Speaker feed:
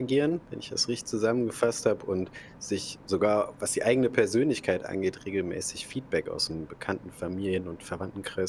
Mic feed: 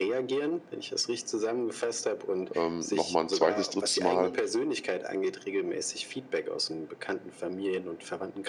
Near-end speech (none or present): present